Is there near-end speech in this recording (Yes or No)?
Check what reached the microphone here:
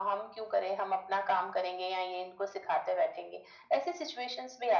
No